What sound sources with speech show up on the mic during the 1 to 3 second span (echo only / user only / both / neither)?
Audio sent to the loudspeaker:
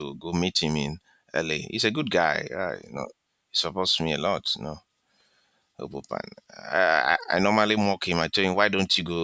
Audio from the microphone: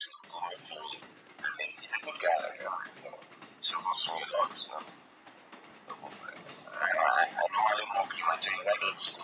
echo only